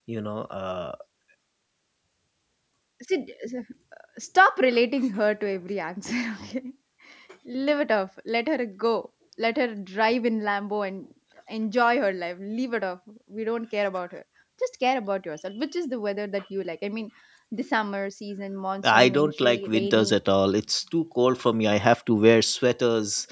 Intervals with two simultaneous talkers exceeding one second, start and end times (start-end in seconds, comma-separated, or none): 18.8-20.2